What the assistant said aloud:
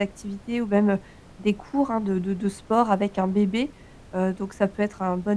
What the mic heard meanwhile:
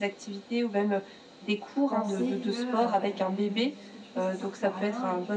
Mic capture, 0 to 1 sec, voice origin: echo only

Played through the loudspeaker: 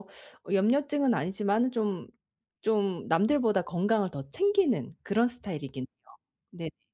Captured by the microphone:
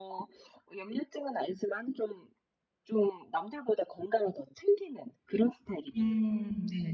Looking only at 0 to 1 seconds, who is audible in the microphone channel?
echo only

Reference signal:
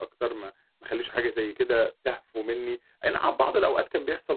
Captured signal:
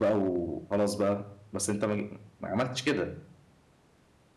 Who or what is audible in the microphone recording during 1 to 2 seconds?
user only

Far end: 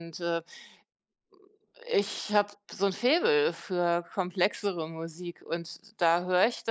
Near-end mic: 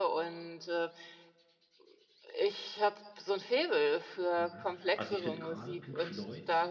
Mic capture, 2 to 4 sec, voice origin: echo only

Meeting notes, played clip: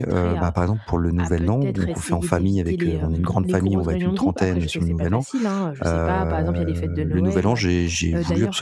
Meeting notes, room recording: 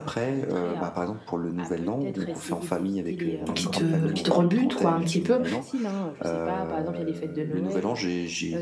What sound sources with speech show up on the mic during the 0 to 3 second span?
echo only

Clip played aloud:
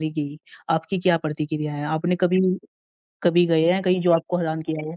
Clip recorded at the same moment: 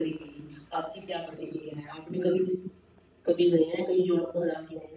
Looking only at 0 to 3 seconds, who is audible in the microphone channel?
echo only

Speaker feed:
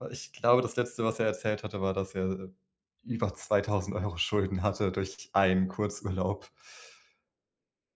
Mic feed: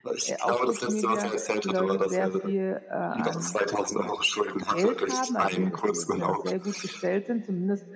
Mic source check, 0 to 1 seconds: both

